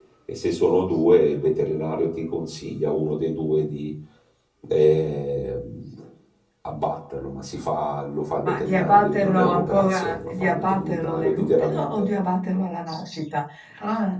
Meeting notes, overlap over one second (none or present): present